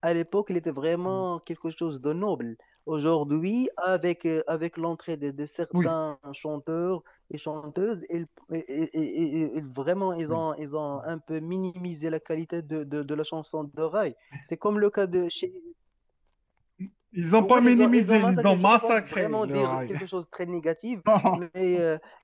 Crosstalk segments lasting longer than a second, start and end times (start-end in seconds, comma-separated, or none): 17.4-20.0